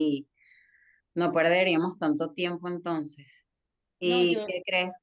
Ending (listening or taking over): listening